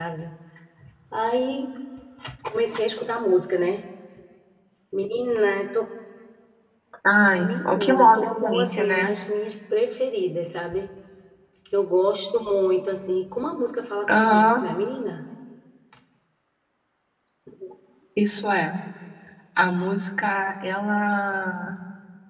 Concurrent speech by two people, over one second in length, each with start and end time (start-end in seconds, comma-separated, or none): 7.3-9.1